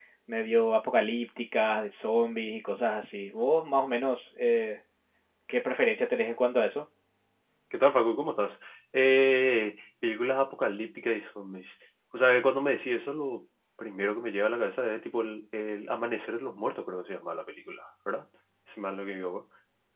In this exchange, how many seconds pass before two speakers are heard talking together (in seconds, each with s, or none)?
none